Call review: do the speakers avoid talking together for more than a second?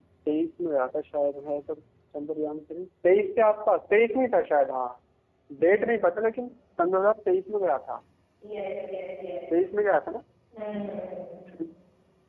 Yes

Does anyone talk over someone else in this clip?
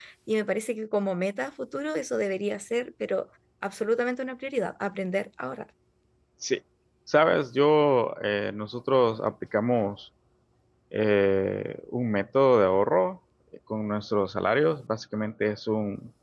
No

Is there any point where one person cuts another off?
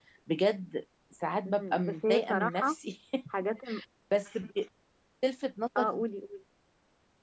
Yes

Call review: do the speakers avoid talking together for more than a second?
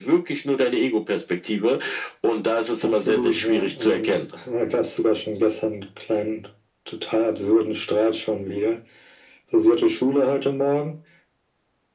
No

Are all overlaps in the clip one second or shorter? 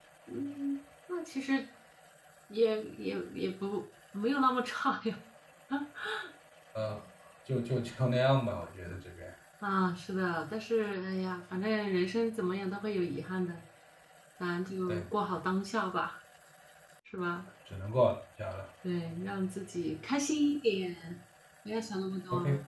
Yes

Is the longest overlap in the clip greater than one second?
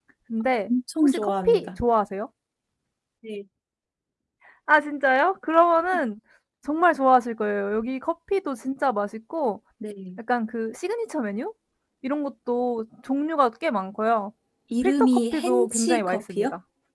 Yes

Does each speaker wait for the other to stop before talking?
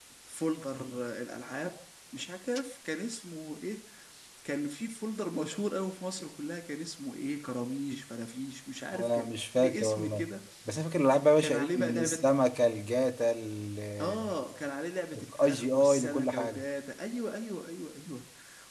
No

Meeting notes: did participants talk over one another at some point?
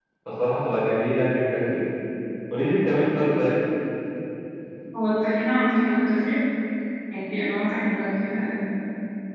No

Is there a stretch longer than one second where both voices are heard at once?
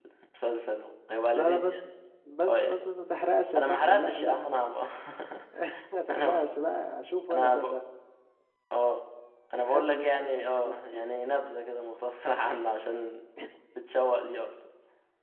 Yes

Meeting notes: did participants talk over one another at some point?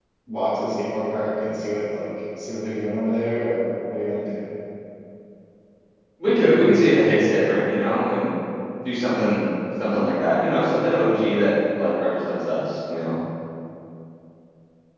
No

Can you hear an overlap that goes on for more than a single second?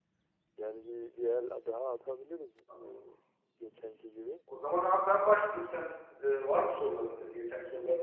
No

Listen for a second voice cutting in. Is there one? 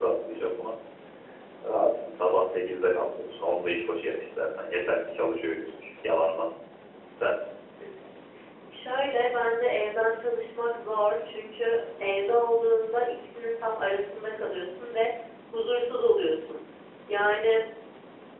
No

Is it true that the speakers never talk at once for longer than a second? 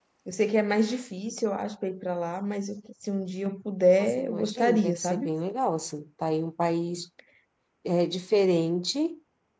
No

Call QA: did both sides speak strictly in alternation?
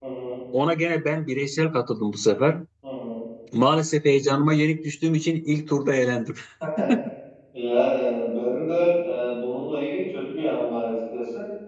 Yes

